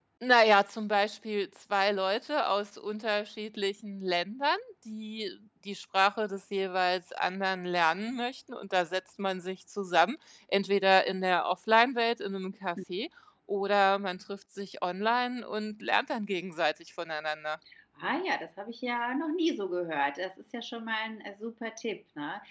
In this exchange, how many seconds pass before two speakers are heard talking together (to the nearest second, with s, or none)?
none